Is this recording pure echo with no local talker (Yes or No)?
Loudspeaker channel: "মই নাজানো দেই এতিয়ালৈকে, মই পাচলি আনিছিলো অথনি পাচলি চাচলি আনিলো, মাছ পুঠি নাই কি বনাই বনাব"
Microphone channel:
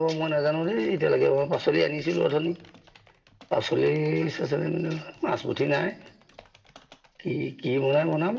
Yes